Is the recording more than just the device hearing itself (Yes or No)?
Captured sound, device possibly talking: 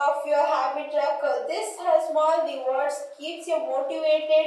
No